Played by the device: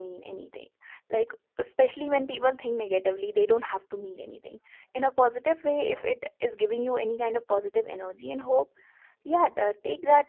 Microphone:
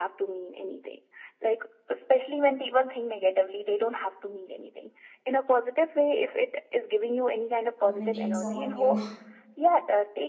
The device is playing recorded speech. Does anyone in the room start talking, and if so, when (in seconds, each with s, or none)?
7.8 s